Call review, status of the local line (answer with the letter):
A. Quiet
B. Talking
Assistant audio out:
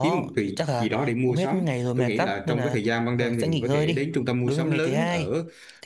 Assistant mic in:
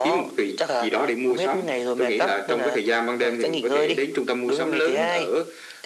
A